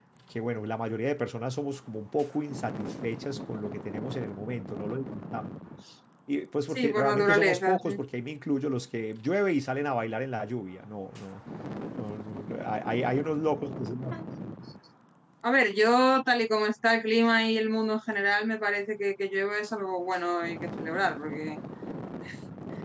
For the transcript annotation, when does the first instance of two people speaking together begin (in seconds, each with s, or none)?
6.7 s